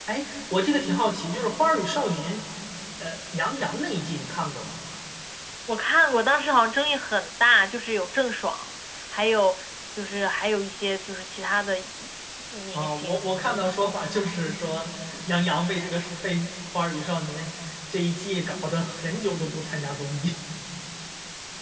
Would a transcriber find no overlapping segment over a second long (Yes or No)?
Yes